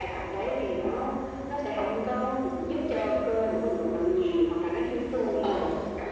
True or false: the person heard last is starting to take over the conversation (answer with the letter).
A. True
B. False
B